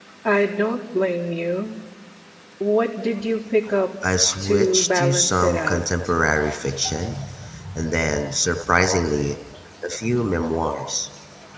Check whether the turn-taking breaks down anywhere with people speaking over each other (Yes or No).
Yes